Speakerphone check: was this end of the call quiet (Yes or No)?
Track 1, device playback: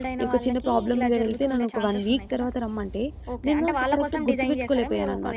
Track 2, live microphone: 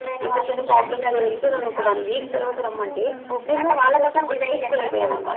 No